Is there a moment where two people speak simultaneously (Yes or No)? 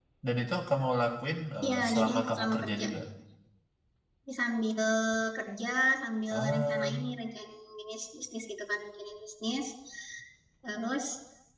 Yes